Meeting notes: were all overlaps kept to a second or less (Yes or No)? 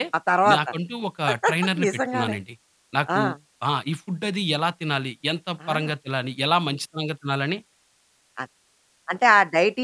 Yes